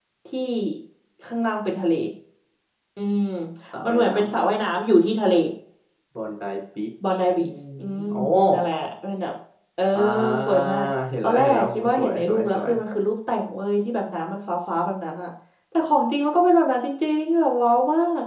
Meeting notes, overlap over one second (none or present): present